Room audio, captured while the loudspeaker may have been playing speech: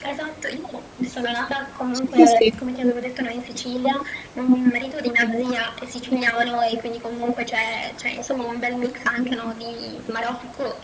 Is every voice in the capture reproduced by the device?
No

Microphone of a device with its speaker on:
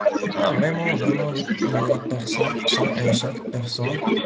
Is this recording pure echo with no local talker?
No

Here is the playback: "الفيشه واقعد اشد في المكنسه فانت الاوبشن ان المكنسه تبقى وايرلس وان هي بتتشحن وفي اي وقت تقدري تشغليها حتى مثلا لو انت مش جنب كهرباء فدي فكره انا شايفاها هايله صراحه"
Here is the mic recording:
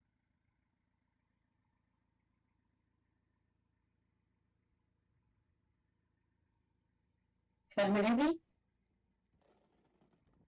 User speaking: Yes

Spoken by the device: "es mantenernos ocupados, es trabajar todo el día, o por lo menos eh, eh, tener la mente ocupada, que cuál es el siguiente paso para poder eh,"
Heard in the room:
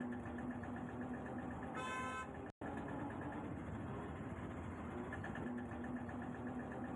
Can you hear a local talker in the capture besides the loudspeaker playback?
No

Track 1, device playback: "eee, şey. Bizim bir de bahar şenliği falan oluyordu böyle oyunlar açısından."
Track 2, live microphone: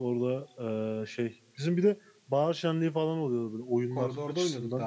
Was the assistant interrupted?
Yes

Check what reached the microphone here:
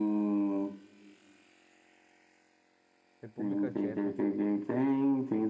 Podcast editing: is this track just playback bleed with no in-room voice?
No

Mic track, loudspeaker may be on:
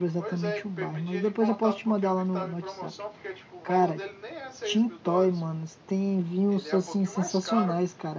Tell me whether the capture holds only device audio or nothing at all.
No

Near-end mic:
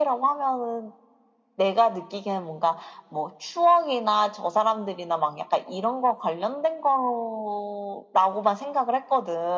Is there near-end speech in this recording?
No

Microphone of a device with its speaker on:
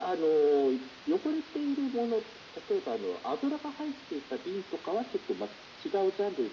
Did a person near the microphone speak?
No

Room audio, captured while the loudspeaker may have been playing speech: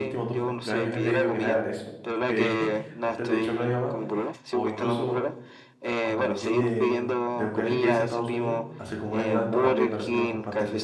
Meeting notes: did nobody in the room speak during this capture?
No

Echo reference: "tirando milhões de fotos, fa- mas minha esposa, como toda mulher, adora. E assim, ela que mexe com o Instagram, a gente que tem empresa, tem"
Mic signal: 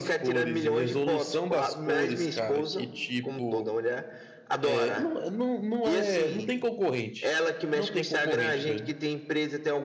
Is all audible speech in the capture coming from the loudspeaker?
No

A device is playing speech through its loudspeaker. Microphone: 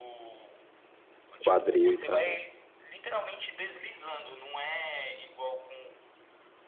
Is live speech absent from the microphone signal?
No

